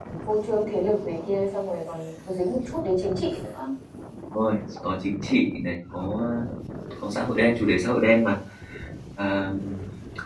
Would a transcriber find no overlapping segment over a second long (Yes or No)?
Yes